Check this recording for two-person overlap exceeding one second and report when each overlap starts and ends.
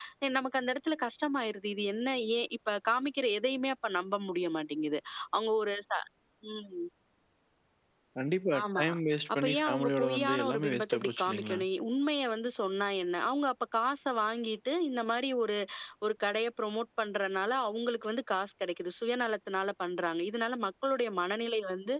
9.4-11.6

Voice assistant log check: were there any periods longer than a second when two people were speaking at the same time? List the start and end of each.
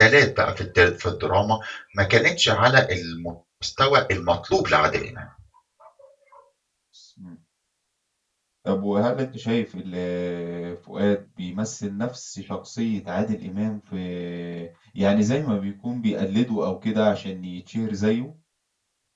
none

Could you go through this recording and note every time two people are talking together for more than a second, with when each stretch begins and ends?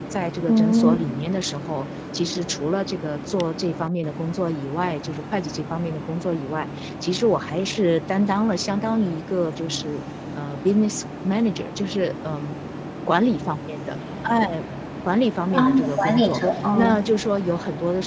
15.5-17.0

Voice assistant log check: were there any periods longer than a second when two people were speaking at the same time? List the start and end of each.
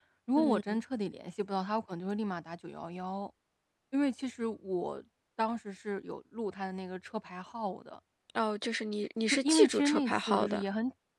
9.3-10.6

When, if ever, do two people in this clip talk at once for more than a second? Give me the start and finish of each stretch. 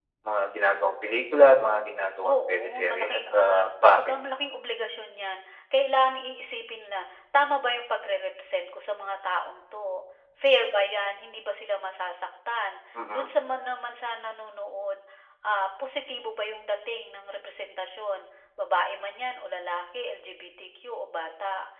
2.2-4.0

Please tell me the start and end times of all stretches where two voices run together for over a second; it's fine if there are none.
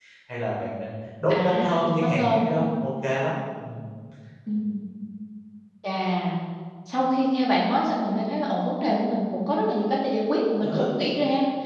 1.3-2.6

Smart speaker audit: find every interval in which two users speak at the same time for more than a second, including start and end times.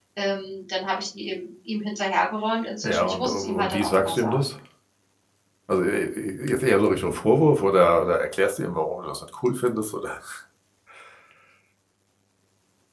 2.8-4.4

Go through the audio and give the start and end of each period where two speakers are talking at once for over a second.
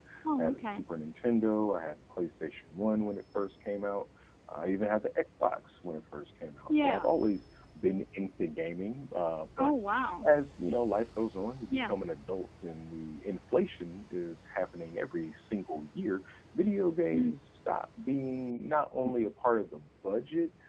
none

